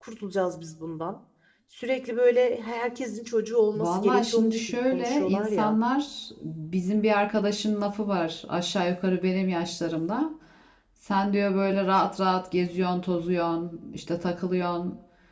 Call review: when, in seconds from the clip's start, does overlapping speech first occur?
3.8 s

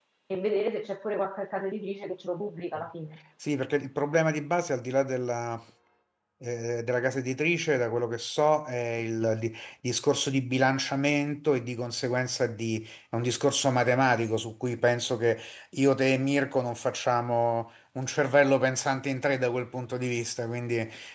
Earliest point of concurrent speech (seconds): none

